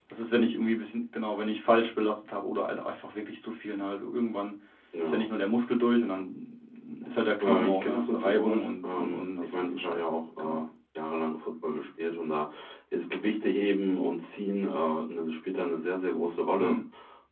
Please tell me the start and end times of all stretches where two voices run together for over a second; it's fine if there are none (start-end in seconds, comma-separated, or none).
7.4-10.6